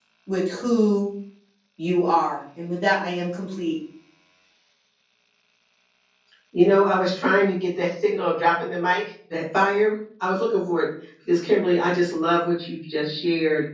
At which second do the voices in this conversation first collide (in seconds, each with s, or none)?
none